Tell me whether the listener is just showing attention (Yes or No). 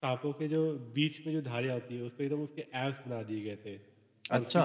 Yes